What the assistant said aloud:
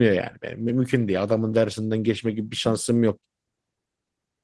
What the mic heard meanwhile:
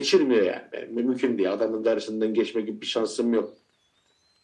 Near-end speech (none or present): none